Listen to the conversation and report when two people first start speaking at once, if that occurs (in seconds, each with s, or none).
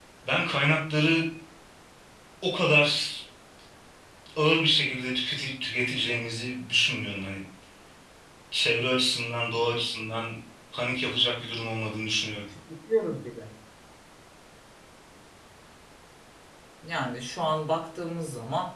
none